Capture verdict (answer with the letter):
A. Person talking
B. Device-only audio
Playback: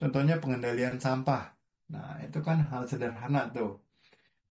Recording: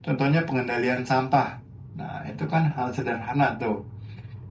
B